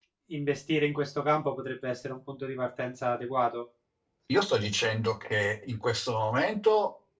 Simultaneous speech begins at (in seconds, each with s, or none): none